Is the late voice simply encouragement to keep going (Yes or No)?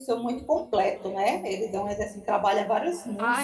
No